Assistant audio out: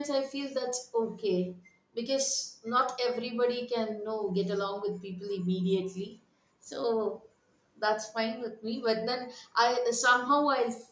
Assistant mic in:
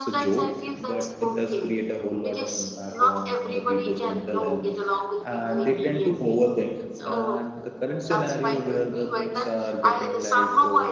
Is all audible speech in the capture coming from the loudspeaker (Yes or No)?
No